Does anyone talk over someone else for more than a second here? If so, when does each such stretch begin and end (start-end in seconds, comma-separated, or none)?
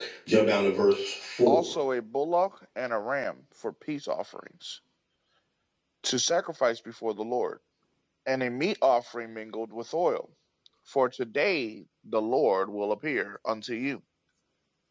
none